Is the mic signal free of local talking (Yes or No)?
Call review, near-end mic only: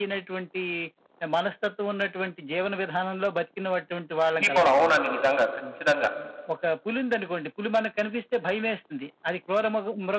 No